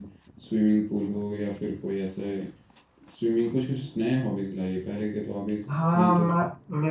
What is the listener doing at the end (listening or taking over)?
taking over